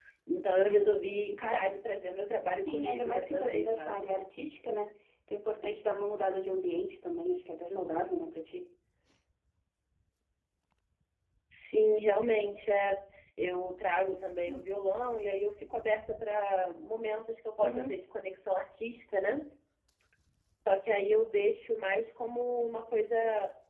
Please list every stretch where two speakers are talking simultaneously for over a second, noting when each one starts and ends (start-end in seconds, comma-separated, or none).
2.7-4.0